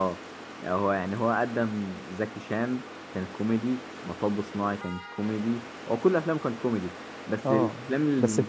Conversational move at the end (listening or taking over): taking over